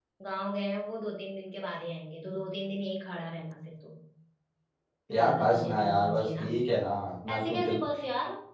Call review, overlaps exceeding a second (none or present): present